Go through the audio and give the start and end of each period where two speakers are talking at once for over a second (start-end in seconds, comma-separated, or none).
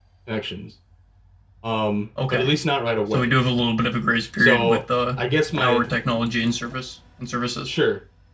none